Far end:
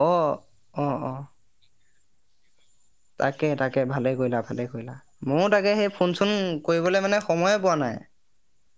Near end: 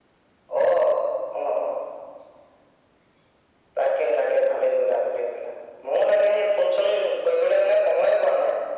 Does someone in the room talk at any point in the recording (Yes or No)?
No